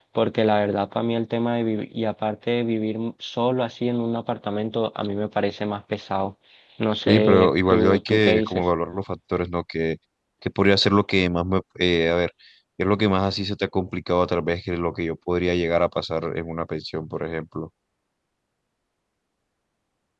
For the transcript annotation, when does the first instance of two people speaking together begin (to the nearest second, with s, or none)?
7 s